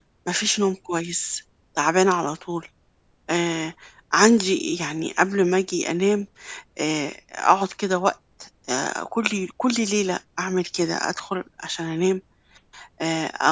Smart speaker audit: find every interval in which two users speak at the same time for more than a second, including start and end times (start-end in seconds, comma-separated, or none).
none